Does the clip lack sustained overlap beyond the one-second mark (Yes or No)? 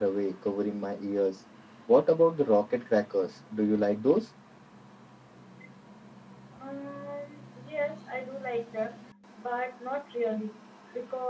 Yes